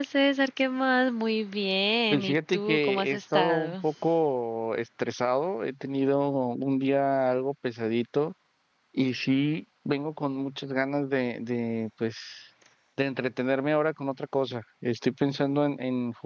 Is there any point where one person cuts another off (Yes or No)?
Yes